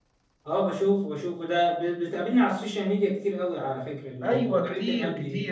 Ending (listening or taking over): taking over